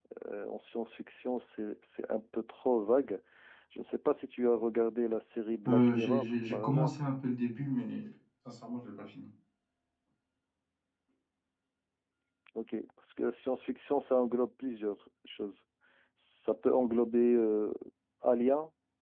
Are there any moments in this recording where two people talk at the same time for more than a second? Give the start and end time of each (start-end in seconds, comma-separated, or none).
5.7-6.9